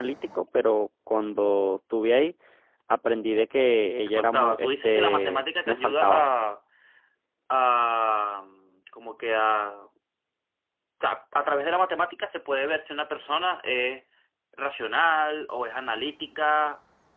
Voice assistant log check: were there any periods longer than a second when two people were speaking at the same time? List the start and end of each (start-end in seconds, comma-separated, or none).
4.1-6.3